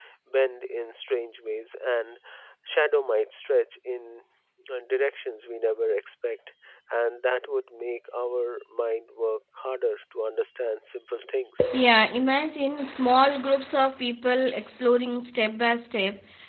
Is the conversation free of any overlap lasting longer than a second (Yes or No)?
Yes